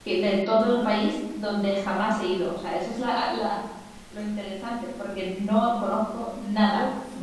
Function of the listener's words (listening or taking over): taking over